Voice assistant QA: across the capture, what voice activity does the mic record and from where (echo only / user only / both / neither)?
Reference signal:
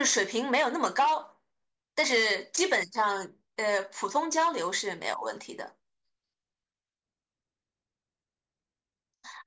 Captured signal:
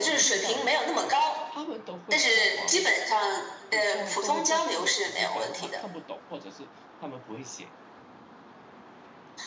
both